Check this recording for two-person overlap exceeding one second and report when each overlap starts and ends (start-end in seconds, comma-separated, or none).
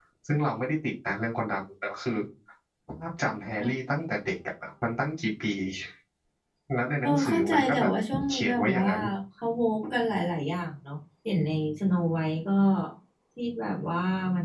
7.0-8.9